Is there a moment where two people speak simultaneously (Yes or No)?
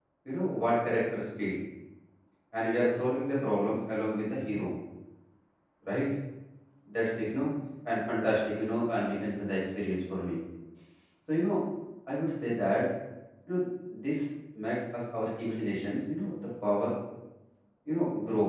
No